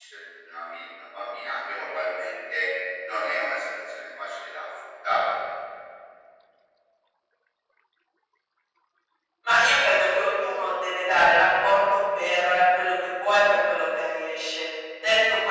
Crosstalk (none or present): none